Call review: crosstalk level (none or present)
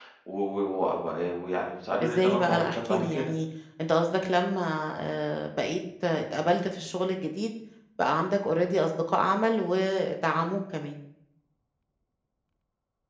present